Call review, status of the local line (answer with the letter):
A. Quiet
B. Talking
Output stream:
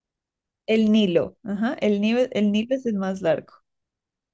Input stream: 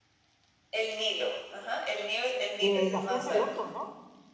B